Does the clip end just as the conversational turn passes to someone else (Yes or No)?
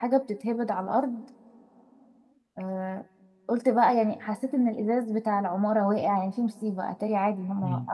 Yes